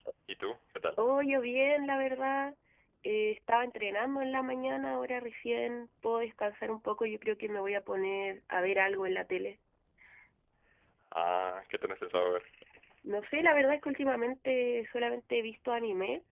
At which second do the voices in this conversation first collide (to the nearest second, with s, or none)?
none